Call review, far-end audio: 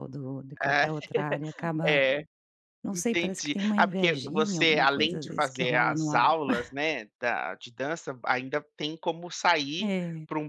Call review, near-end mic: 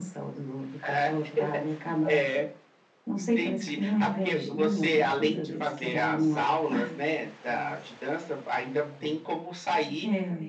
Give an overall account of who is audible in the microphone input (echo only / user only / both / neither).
both